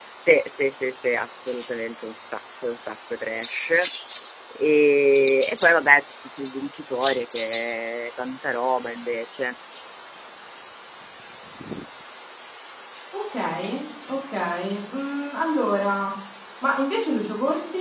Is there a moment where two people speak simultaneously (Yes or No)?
No